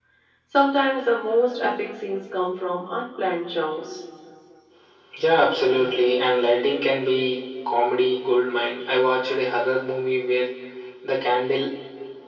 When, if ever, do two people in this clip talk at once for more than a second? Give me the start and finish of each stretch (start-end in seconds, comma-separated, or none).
none